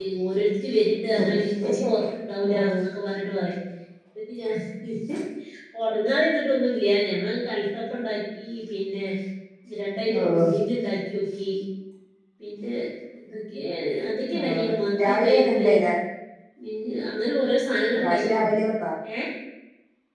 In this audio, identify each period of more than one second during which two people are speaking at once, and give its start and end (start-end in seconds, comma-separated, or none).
14.4-15.7